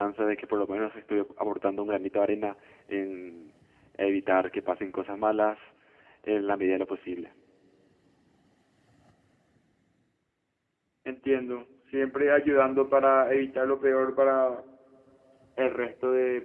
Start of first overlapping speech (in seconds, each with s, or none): none